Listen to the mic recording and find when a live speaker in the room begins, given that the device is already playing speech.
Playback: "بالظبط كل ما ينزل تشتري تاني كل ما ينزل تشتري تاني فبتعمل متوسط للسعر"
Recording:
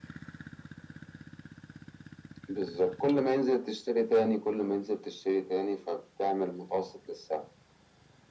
none

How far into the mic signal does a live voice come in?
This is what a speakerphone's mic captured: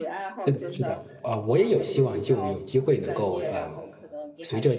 0 s

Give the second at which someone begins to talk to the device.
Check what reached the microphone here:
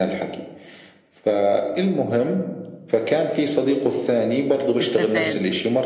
5 s

